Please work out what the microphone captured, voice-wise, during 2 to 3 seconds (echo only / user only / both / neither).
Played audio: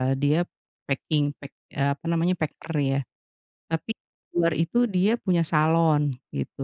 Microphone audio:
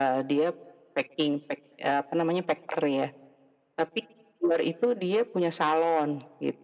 echo only